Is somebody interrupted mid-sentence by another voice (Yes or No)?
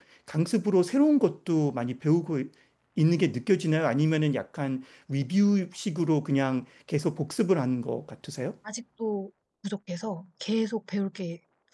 No